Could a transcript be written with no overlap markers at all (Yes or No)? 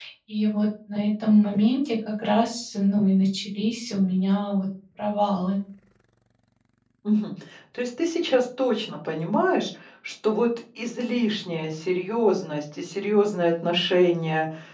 Yes